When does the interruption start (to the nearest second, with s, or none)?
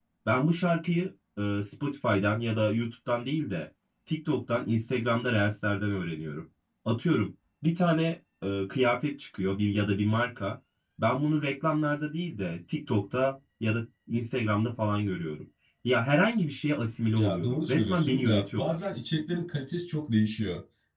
17 s